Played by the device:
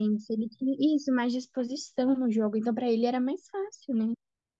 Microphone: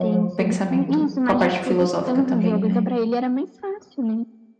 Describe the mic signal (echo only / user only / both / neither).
both